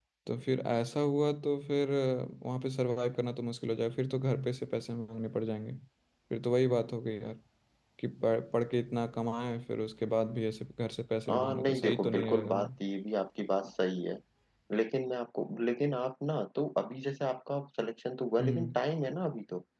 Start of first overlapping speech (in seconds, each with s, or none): 11.3 s